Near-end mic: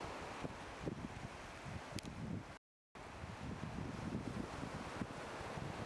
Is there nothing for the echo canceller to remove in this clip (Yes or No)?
Yes